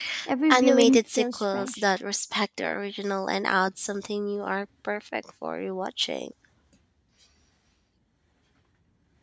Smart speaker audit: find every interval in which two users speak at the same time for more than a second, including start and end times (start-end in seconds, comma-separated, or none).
0.5-1.9